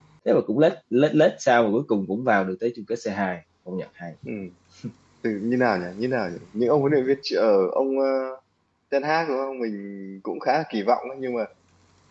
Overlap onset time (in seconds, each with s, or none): none